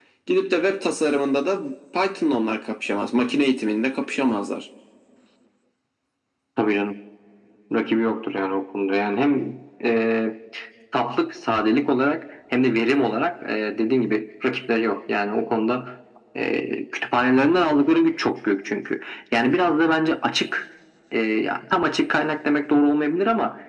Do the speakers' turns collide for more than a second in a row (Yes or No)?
No